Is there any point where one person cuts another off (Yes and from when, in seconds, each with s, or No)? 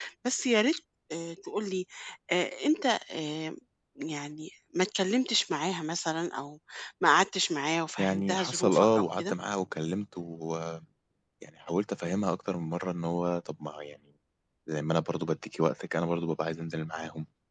Yes, from 8.0 s